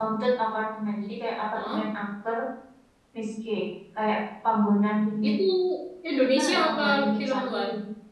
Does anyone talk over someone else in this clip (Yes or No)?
Yes